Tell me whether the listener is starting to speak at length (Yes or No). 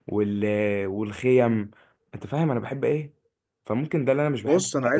Yes